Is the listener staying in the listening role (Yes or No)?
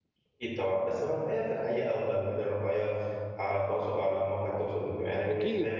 No